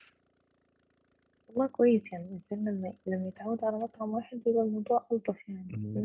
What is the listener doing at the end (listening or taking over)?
taking over